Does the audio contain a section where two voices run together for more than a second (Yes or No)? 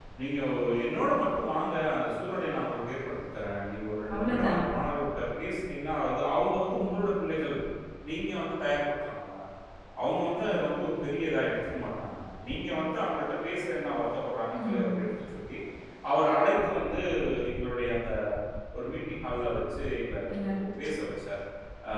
No